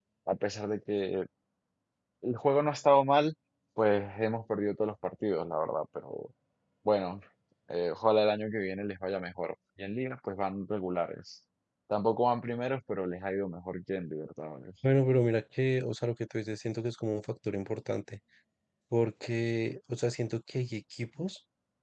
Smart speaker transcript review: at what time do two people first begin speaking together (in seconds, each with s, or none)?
none